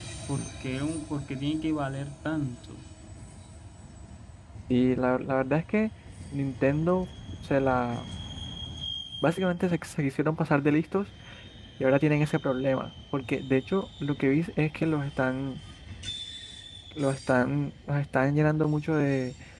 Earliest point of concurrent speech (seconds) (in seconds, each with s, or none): none